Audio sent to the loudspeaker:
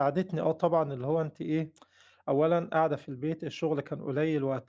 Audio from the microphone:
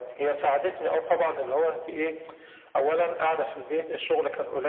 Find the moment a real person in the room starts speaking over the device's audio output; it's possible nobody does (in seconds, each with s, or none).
none